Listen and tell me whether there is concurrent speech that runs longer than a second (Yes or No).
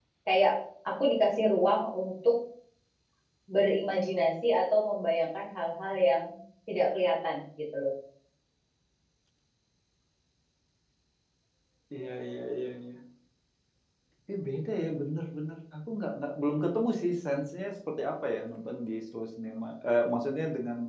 No